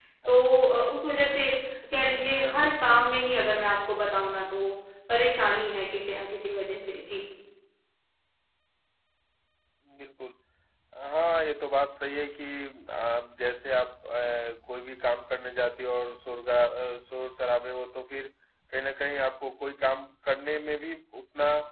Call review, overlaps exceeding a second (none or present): none